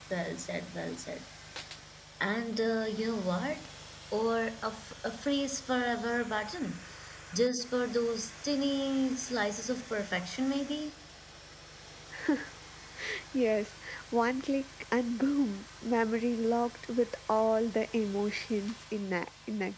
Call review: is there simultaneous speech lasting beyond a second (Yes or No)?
No